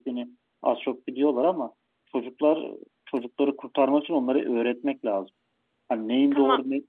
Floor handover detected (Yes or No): No